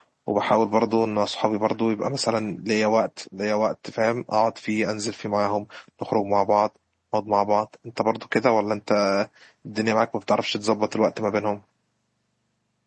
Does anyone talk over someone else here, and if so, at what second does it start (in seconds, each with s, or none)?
none